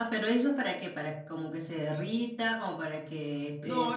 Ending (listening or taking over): taking over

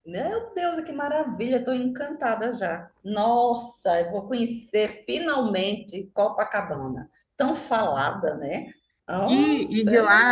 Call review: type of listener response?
taking over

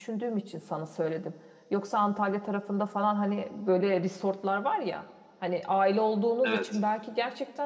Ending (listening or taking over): listening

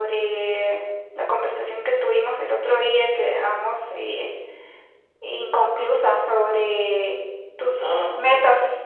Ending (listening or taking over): listening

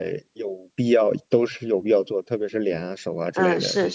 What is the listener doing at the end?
taking over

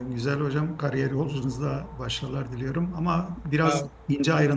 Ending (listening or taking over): listening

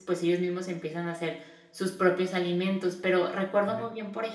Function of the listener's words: listening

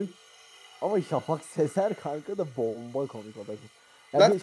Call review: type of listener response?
listening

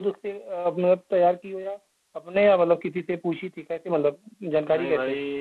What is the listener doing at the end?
taking over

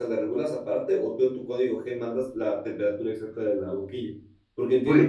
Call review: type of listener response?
listening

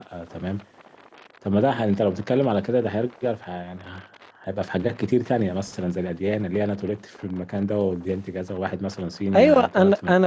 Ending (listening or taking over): taking over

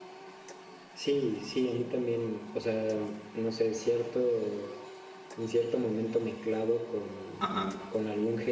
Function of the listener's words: listening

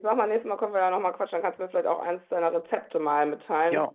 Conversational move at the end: taking over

